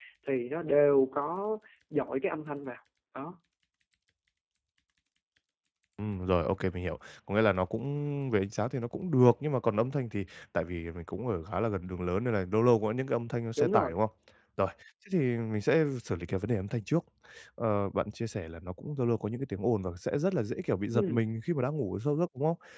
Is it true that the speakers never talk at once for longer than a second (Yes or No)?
Yes